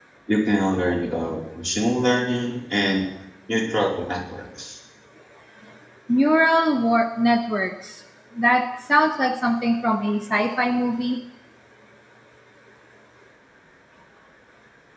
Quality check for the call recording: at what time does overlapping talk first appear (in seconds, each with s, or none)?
none